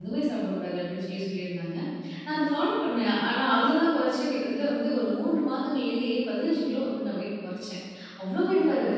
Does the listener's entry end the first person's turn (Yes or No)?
No